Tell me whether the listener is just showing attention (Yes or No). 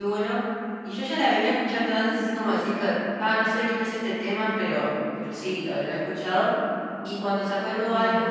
Yes